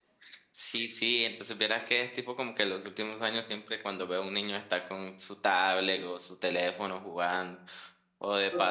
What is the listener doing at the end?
listening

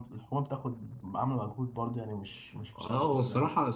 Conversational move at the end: taking over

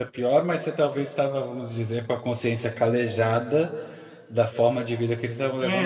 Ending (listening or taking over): taking over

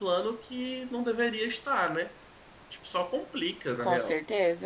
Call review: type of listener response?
taking over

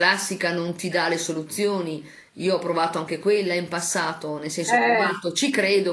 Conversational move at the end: listening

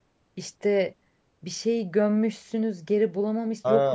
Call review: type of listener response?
taking over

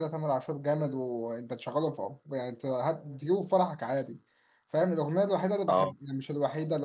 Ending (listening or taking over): listening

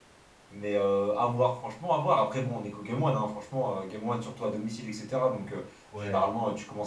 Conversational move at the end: listening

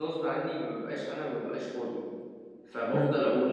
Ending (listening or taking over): listening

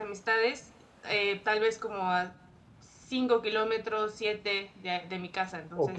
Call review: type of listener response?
taking over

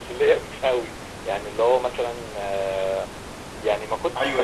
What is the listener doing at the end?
taking over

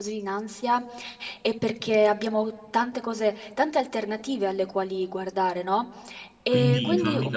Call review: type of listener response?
taking over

